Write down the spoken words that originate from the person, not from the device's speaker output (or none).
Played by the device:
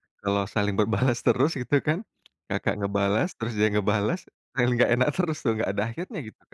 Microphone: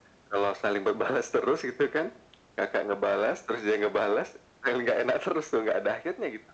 none